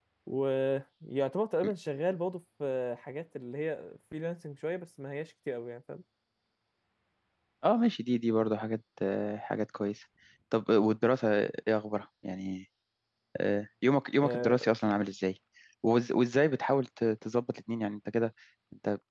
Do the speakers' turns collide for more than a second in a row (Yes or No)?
No